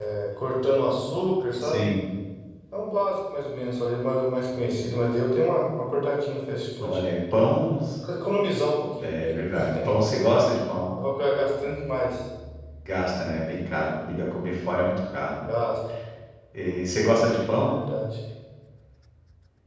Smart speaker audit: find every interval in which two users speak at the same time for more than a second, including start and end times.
none

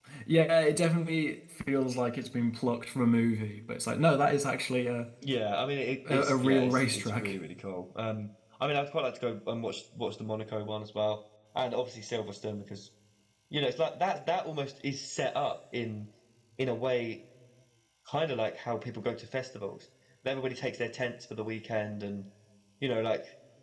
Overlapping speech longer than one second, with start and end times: 6.1-7.3

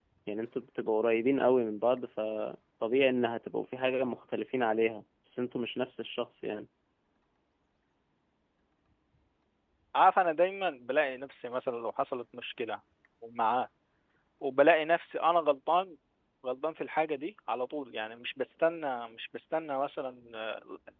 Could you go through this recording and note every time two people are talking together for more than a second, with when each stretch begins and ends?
none

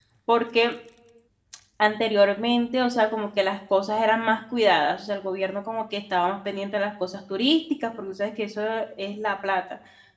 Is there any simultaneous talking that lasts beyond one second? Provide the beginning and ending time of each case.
none

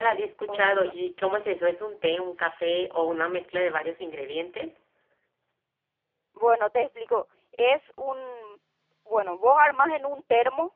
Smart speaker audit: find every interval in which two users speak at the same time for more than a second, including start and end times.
none

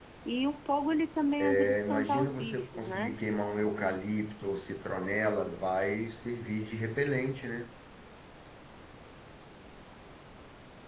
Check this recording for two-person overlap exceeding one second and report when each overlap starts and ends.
1.4-3.2

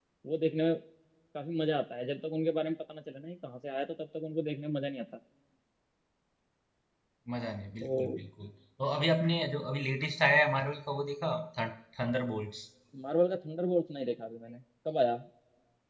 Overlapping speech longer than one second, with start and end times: none

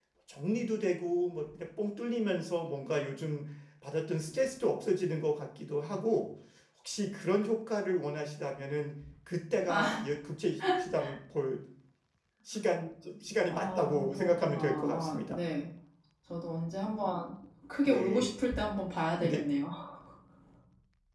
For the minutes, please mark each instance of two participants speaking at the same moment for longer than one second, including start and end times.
13.5-15.4

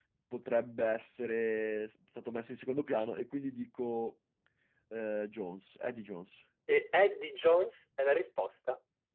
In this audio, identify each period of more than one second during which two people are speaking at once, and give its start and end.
none

